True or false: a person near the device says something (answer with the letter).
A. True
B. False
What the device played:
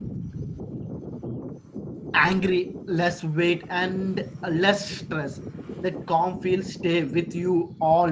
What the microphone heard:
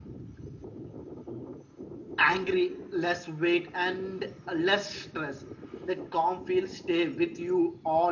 B